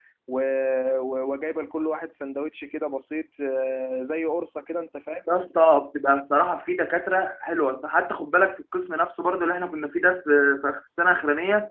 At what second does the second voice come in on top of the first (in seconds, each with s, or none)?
none